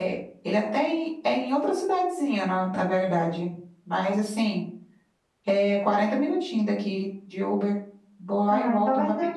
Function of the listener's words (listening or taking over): taking over